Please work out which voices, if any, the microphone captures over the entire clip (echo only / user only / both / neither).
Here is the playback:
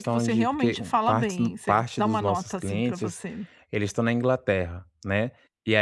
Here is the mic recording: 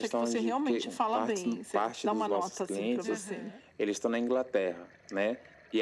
both